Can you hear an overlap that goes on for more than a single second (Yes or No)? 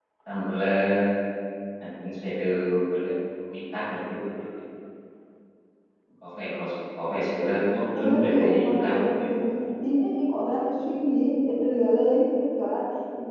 Yes